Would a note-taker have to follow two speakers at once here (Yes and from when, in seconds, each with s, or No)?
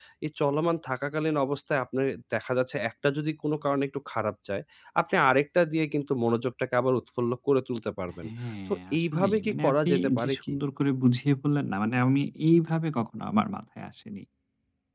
Yes, from 8.7 s